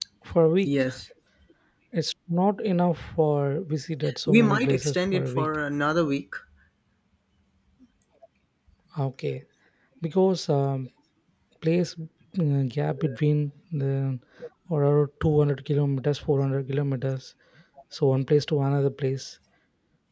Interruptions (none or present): present